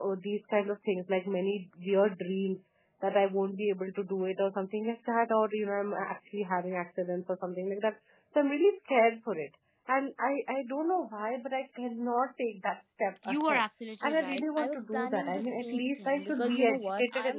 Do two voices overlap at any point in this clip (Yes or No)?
Yes